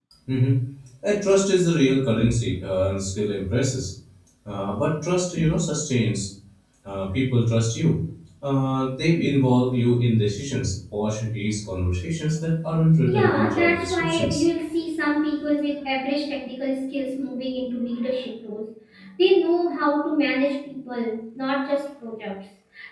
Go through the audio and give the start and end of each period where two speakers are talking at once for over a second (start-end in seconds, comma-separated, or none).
13.1-14.4